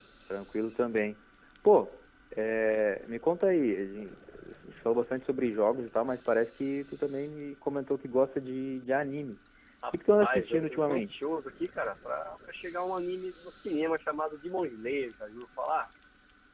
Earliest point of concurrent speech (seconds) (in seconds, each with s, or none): 9.9 s